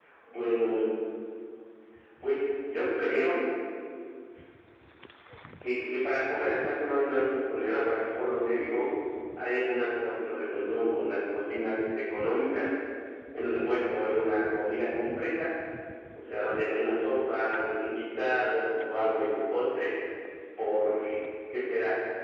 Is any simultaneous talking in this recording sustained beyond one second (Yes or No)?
No